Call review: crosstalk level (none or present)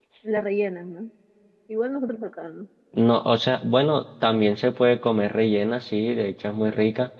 none